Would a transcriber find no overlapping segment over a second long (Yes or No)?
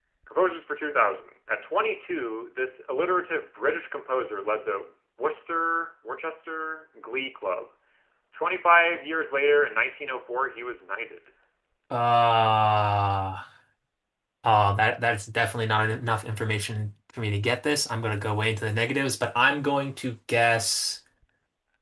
Yes